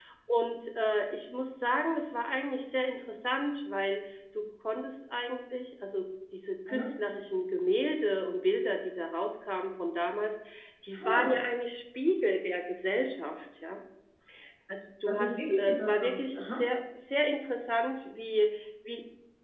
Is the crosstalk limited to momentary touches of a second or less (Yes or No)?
No